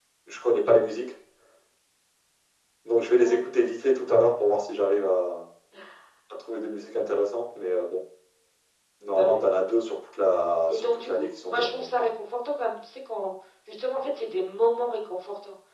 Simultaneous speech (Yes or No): Yes